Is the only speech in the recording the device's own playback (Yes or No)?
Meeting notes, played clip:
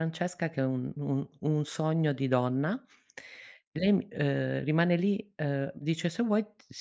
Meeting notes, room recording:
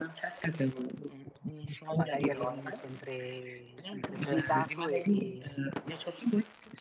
No